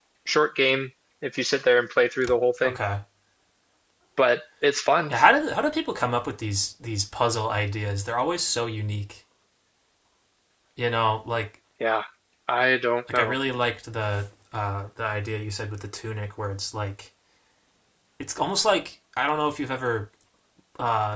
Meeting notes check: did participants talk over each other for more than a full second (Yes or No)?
No